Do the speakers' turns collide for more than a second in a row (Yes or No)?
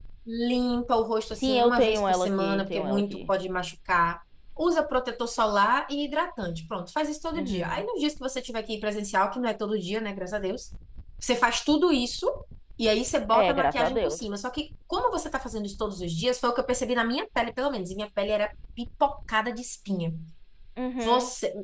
Yes